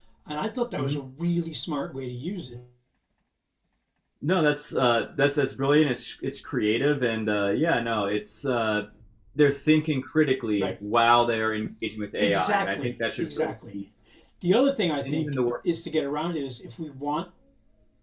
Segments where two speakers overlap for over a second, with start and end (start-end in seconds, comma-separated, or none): 12.2-13.8